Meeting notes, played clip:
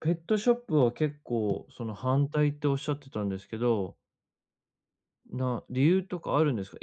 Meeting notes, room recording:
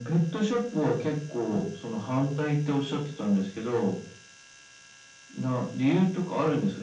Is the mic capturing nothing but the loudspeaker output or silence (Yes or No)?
Yes